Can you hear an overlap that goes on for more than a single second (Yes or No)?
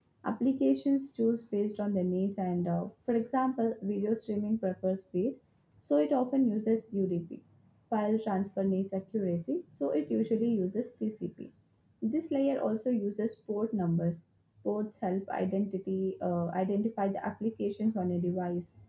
No